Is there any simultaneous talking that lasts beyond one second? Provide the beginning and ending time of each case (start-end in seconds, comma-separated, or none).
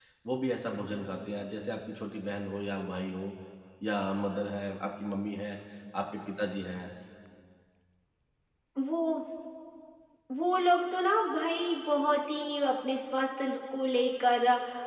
none